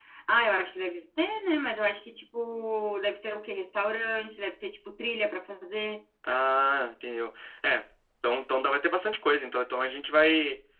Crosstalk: none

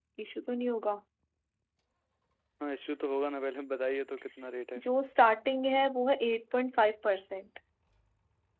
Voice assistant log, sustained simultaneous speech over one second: none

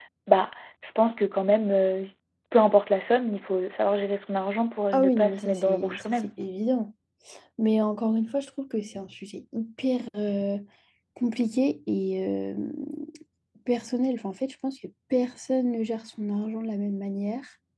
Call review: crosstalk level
present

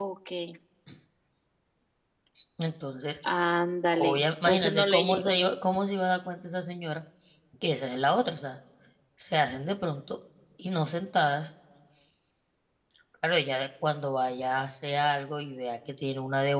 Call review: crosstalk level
present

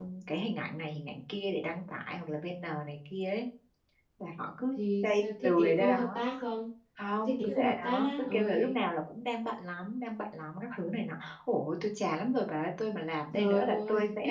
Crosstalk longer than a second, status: present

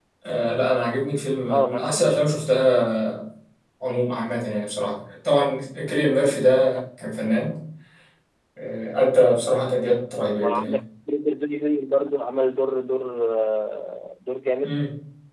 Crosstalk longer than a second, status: none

